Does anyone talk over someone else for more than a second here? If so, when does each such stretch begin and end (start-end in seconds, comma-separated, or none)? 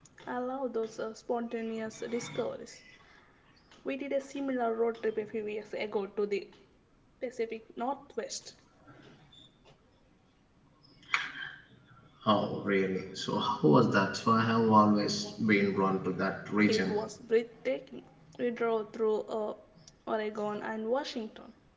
none